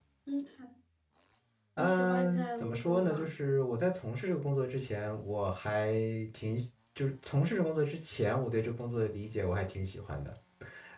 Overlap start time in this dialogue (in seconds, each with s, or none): 1.8 s